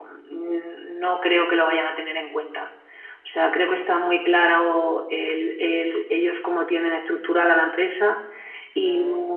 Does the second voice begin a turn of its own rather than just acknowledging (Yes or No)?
No